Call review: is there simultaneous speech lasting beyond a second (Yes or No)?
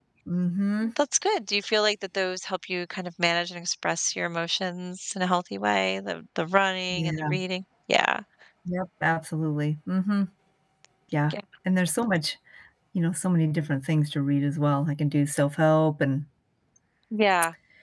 No